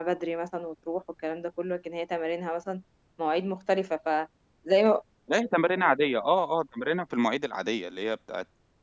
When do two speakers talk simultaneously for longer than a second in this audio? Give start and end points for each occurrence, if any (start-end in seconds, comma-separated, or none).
none